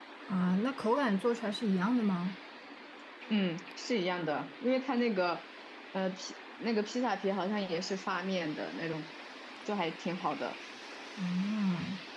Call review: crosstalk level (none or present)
none